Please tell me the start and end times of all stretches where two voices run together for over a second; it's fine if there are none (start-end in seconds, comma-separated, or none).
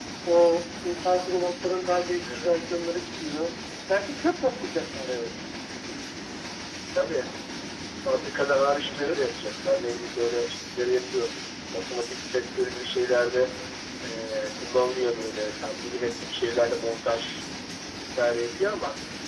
none